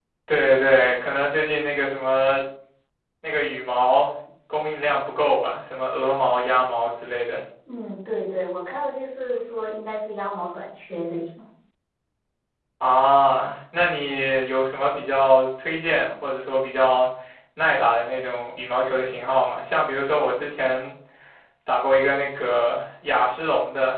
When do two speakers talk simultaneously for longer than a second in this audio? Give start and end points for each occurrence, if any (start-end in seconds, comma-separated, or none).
none